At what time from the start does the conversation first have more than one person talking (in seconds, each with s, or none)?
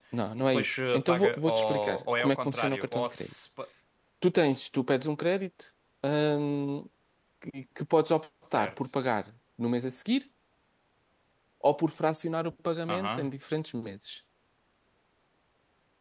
0.5 s